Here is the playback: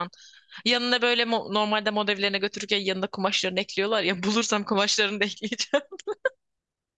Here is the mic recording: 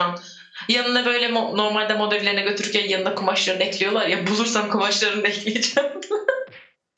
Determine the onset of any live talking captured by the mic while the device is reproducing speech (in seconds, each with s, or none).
none